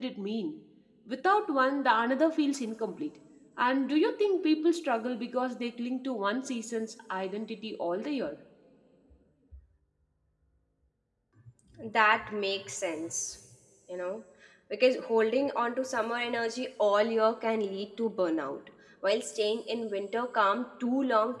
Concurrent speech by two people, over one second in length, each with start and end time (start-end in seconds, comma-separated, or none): none